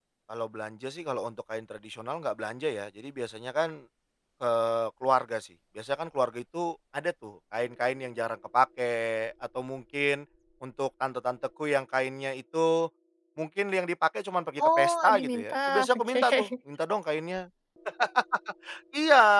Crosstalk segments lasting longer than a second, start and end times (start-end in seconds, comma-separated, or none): 14.6-16.5